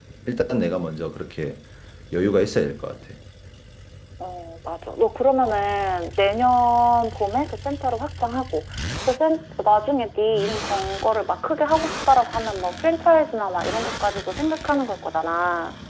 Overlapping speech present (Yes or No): No